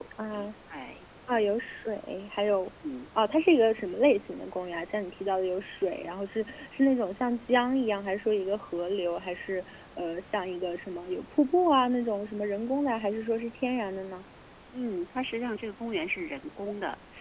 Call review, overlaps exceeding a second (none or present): none